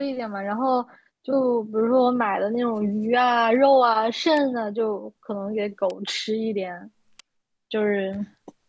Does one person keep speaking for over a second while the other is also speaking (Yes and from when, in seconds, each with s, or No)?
No